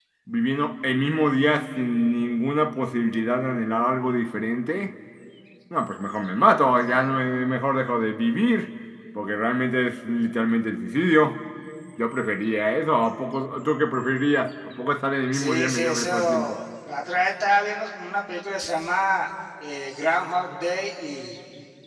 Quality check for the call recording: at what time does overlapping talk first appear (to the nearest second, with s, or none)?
15 s